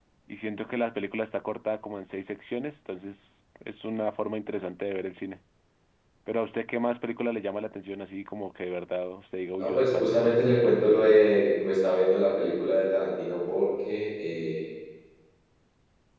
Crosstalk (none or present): present